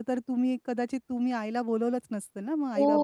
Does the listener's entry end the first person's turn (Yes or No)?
Yes